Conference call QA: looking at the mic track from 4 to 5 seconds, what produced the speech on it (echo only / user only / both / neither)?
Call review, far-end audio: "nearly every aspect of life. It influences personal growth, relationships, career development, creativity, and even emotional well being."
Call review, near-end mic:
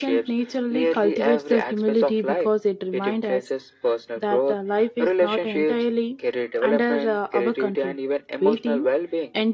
both